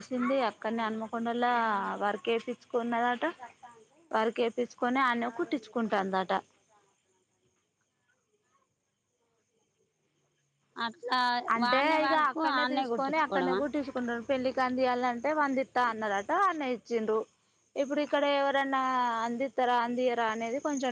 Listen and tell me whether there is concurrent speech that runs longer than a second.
Yes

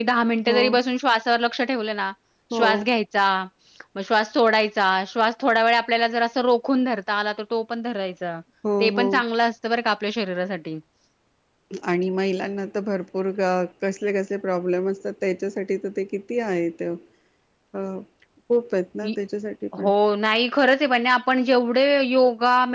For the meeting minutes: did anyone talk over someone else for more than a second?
No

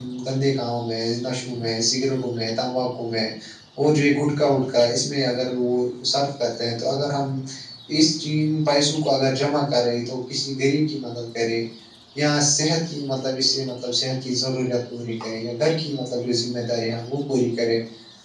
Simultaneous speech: No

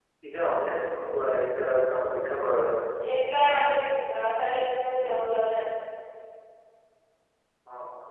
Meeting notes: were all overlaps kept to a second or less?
Yes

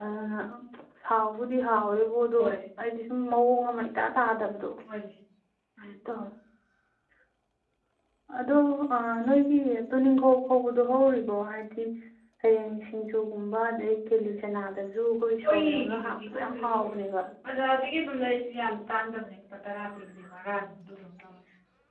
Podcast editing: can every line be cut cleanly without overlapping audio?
No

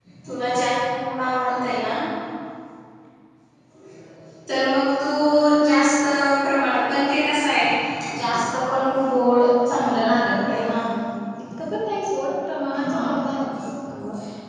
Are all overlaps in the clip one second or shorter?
Yes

